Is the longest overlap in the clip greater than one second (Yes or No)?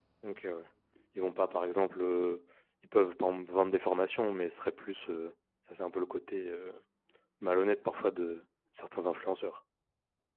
No